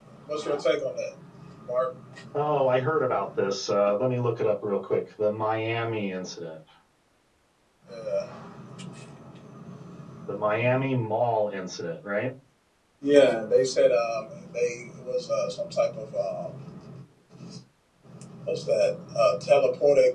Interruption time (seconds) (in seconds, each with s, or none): none